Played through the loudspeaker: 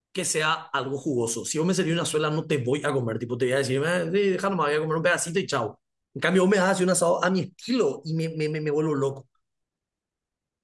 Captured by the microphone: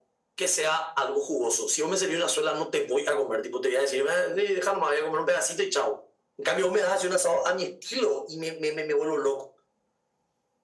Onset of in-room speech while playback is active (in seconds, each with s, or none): none